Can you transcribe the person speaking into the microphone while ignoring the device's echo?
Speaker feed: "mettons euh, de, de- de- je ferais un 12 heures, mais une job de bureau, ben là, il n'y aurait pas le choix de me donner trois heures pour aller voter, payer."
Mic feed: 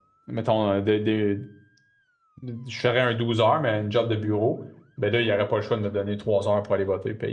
none

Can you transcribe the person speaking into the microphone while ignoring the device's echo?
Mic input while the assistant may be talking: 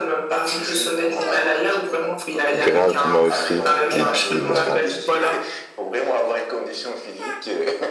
Grave, moi aussi. Et puis, bah,

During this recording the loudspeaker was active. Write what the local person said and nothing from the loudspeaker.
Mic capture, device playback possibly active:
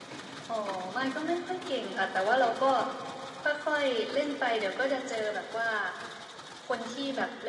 none

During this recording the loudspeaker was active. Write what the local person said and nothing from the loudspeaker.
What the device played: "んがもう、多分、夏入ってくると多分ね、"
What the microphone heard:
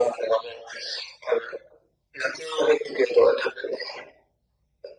none

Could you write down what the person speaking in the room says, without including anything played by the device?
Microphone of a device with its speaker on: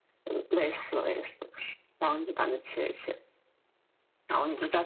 none

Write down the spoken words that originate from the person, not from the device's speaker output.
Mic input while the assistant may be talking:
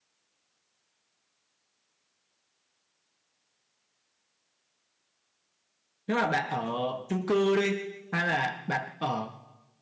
nếu mà bạn ở chung cư đi hay là bạn ở

